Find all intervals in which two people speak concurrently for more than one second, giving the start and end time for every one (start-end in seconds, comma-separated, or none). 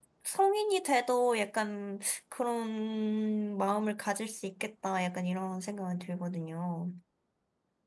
none